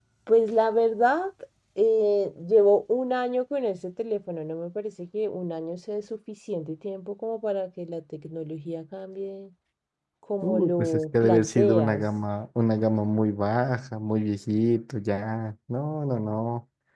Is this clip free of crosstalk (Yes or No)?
No